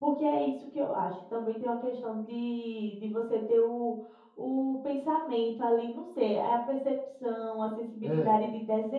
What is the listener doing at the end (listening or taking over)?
listening